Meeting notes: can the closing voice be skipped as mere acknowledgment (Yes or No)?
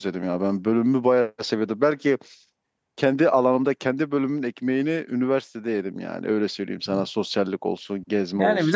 No